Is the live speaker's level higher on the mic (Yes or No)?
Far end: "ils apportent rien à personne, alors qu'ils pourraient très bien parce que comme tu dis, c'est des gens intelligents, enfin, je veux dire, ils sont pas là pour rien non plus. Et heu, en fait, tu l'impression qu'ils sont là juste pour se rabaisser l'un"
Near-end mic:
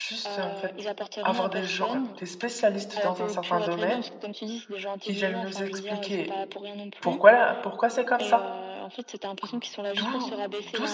Yes